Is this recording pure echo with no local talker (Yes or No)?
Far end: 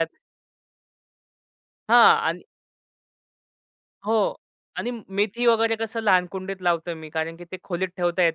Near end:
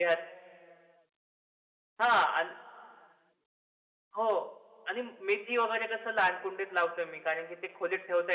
Yes